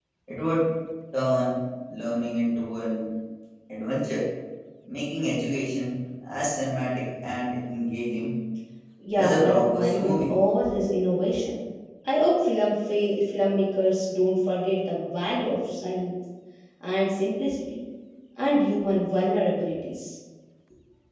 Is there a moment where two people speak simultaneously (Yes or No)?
Yes